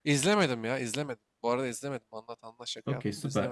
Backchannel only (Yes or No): No